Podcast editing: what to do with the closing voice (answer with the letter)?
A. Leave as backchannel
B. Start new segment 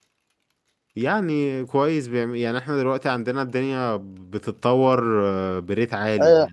B